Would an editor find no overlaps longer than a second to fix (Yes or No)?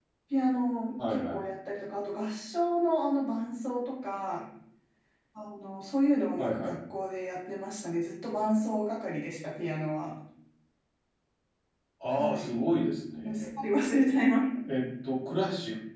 Yes